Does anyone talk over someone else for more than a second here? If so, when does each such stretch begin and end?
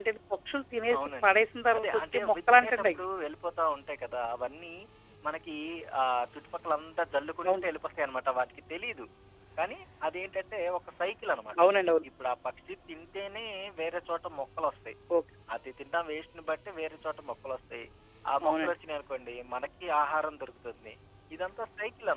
1.8-3.0

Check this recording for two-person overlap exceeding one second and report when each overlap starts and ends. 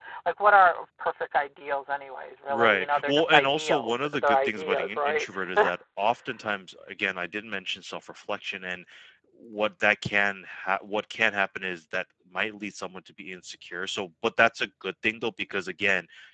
2.5-5.2

